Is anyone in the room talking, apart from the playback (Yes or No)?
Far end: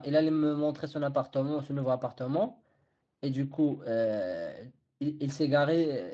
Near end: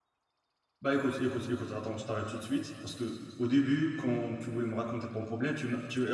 Yes